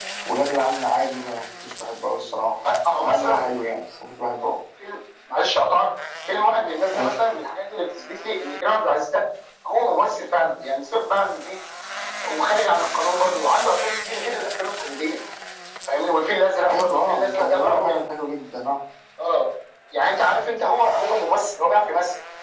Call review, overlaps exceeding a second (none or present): present